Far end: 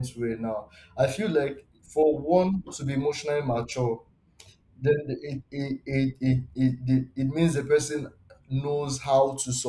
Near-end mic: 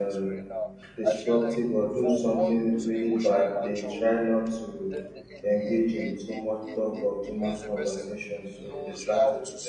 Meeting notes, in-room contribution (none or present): present